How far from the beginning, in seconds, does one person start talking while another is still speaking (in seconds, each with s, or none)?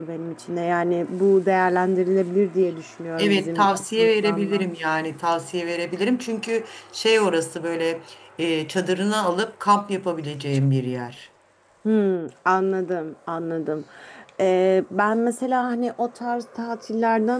3.2 s